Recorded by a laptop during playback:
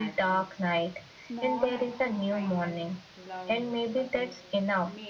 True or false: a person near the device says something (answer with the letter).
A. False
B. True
B